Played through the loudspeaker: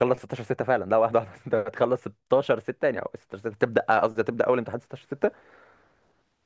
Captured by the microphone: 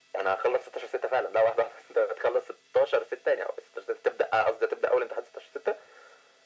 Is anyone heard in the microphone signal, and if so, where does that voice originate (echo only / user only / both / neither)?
echo only